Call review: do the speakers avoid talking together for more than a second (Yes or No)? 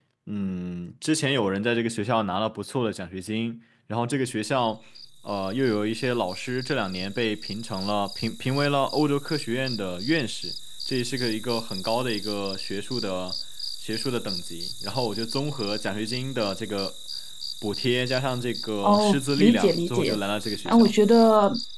No